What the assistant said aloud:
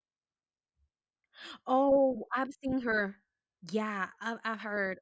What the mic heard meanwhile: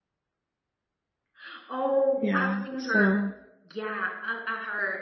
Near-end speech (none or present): present